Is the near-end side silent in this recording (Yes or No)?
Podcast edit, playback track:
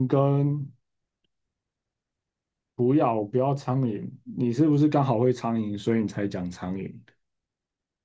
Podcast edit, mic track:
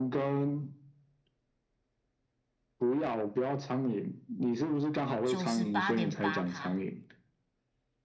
No